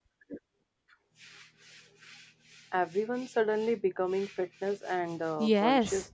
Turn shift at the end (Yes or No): Yes